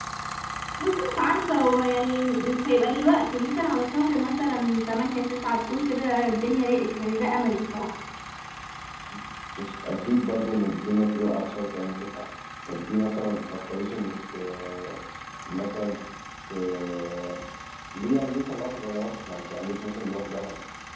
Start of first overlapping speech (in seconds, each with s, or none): none